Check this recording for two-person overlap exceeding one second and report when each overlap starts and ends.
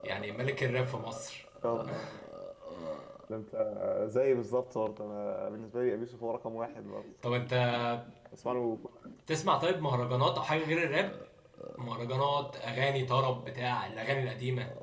none

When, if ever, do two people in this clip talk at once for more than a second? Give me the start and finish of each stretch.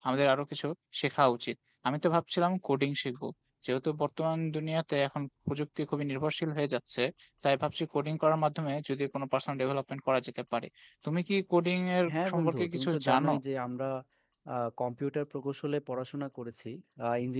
12.1-13.3

